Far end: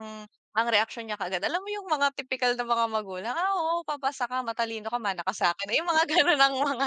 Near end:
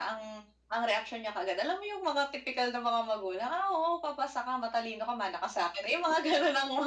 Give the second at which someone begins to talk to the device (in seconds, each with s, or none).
none